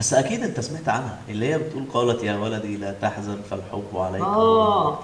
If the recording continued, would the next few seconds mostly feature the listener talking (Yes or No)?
Yes